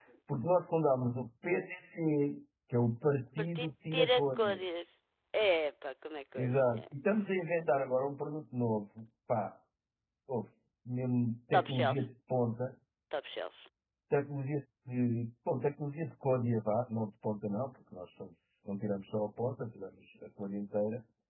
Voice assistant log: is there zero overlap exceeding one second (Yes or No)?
No